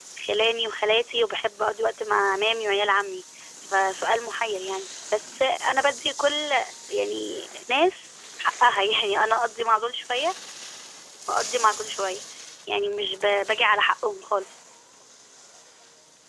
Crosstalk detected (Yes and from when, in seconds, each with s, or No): No